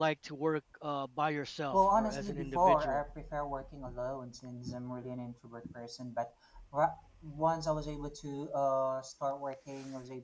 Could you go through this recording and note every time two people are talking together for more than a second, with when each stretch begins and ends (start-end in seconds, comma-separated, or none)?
1.7-3.0